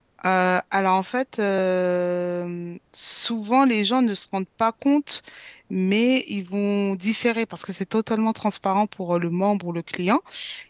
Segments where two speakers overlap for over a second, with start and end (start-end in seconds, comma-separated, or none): none